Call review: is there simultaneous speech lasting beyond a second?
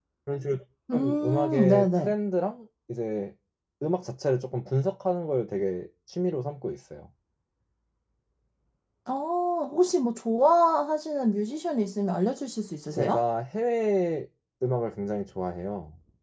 Yes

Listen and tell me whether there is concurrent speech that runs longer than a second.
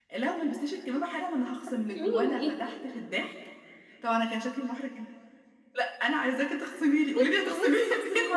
Yes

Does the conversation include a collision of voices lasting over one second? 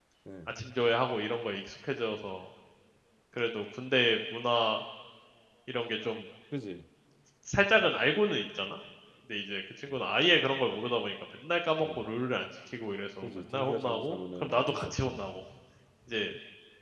Yes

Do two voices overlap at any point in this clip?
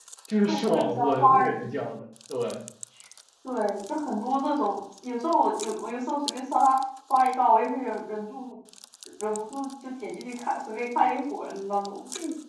Yes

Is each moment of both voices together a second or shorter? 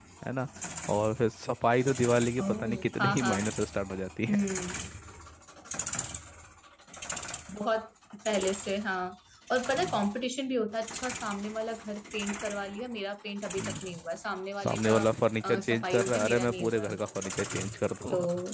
No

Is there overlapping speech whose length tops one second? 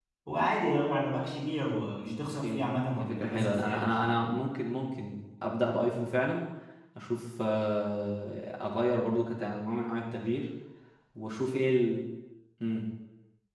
Yes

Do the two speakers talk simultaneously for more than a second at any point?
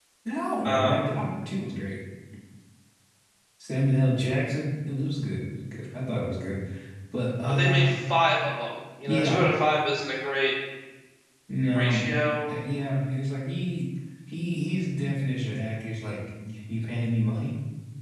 No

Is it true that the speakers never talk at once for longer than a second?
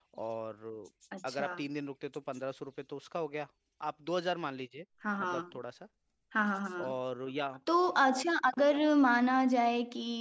Yes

